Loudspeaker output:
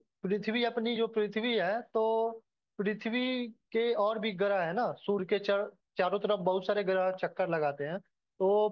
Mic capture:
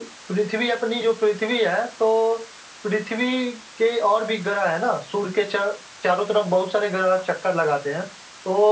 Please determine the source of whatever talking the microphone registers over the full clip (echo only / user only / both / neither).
echo only